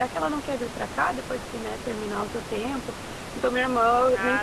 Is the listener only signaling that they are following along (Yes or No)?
Yes